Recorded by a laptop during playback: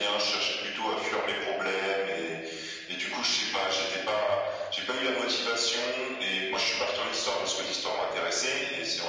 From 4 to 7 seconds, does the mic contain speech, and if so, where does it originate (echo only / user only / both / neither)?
echo only